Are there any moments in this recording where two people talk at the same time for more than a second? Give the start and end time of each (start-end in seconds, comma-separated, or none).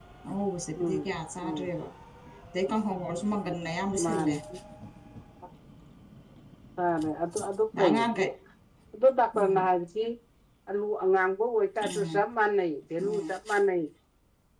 none